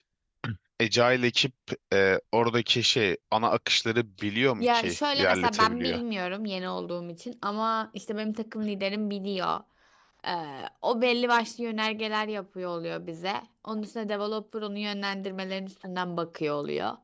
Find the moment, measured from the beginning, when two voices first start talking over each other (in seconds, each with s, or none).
4.6 s